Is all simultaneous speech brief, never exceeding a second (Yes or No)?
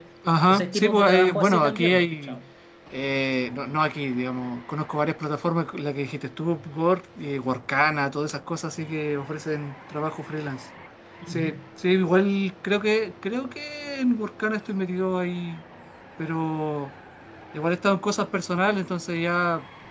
No